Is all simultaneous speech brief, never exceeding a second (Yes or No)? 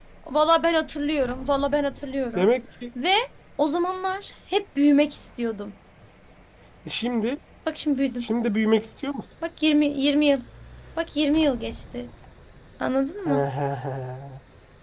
Yes